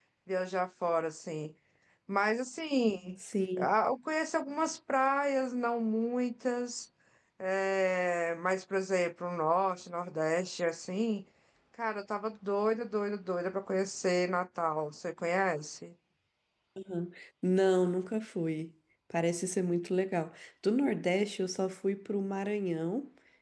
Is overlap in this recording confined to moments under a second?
Yes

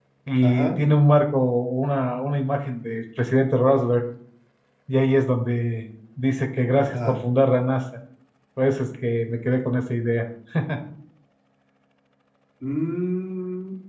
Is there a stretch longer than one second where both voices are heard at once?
No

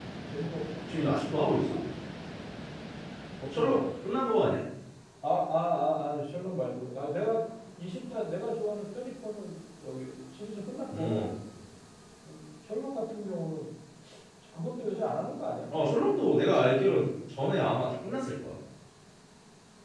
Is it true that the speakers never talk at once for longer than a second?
Yes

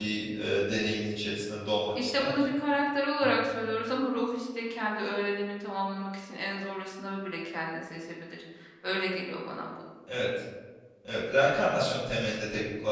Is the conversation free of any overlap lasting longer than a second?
Yes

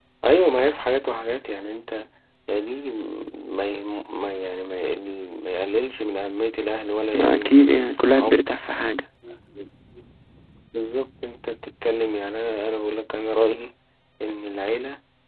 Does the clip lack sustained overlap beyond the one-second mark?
No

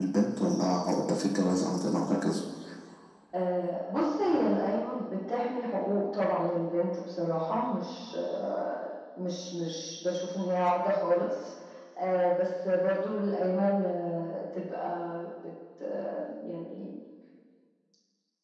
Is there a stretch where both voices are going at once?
No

